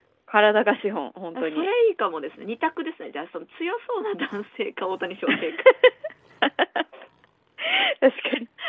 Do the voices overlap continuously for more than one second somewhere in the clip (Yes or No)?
No